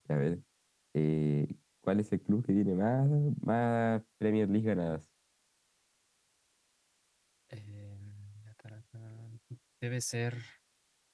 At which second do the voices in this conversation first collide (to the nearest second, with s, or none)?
none